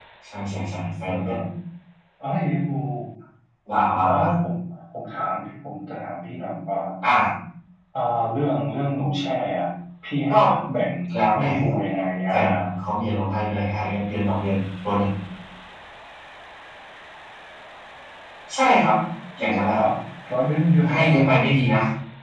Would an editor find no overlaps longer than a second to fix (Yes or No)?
Yes